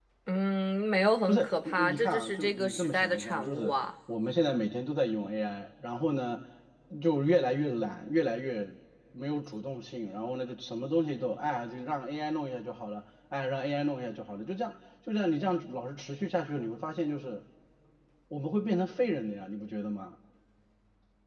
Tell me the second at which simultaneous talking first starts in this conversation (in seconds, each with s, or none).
1.3 s